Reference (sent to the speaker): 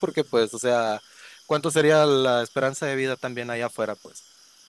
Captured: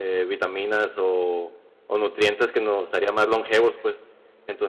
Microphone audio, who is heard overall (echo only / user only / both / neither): user only